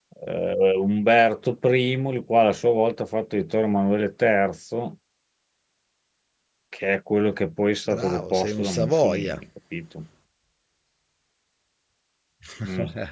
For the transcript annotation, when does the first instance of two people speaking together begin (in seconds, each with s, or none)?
7.9 s